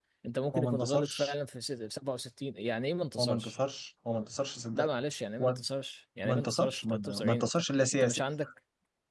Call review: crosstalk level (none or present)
present